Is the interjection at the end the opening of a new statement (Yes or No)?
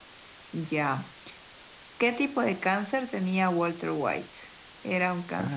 No